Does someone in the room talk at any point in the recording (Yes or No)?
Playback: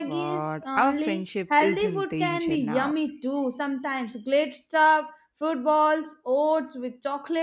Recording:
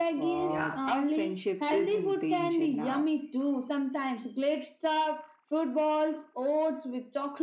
Yes